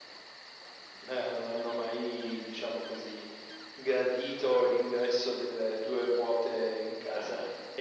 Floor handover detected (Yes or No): No